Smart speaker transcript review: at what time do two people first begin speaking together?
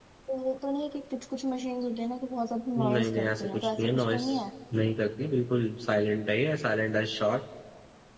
2.8 s

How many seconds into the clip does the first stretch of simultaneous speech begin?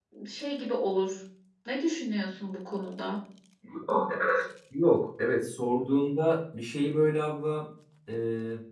none

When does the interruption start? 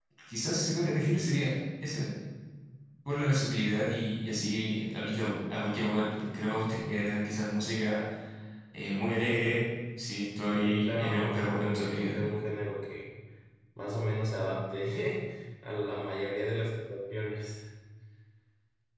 10.6 s

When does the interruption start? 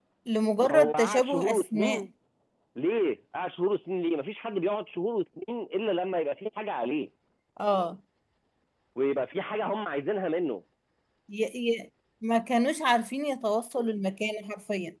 0.6 s

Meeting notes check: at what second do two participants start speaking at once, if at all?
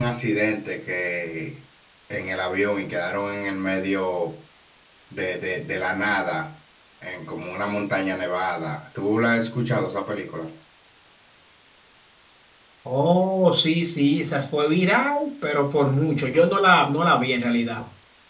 none

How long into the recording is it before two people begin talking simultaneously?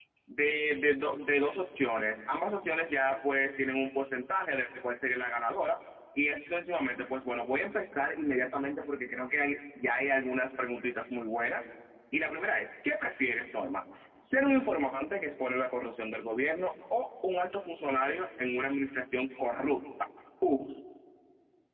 none

